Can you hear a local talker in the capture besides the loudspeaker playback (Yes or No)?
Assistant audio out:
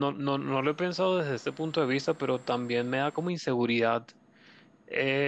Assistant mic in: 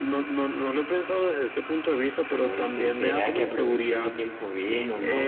Yes